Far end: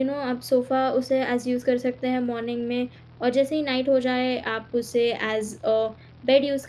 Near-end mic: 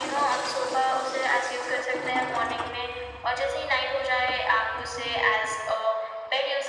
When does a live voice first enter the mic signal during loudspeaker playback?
none

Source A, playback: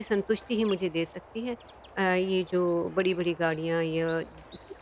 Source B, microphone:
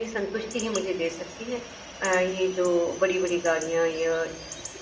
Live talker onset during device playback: none

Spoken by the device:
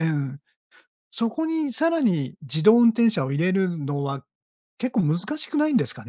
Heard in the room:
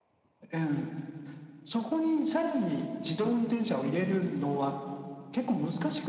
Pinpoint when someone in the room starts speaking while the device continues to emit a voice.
none

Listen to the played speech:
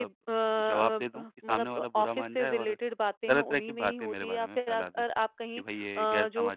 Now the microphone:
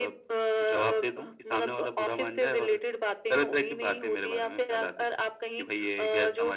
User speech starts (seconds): none

